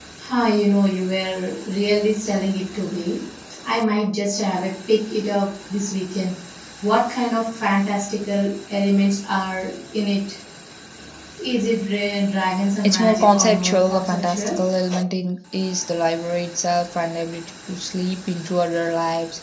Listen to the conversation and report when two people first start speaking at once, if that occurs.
12.8 s

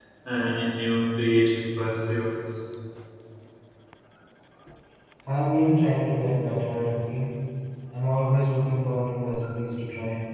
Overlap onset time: none

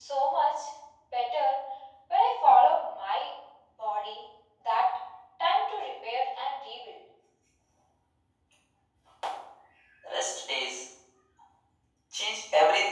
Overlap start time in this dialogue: none

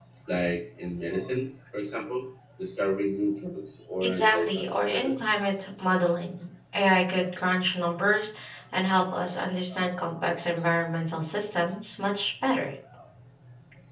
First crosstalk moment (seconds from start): 4.0 s

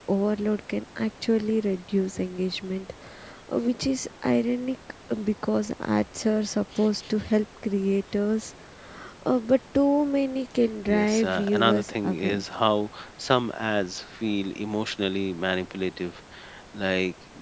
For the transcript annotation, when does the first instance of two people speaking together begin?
10.9 s

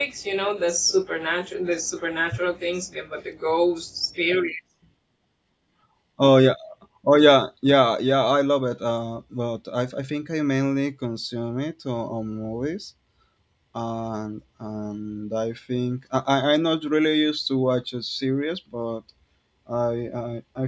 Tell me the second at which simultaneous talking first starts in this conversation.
none

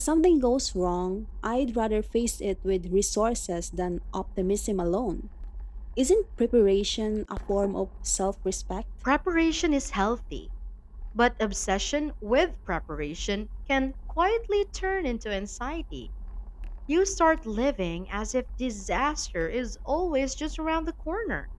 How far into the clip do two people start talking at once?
none

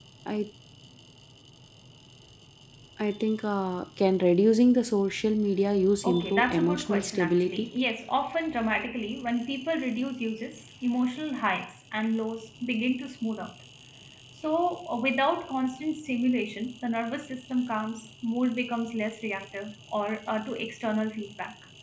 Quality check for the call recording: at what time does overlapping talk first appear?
6.0 s

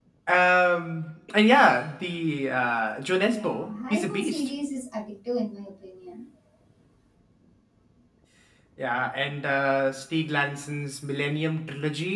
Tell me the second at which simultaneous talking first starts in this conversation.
3.2 s

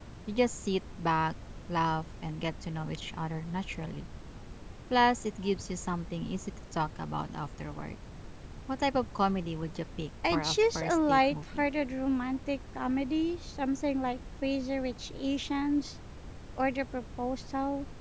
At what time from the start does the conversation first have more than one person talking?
10.2 s

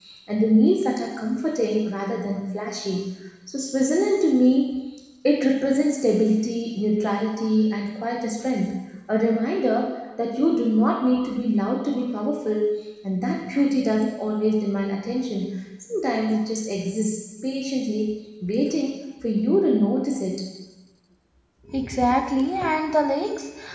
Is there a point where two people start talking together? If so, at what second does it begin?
none

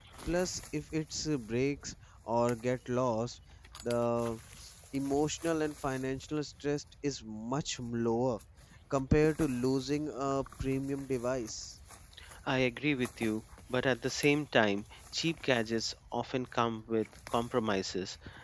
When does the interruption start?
none

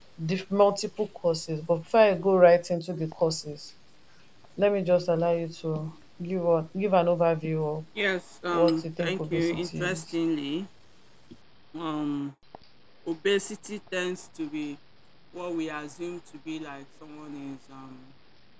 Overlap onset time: 8.6 s

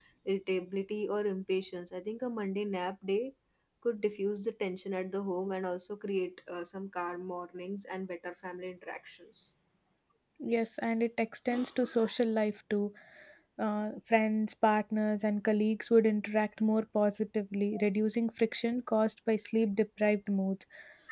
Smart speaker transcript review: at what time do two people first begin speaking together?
none

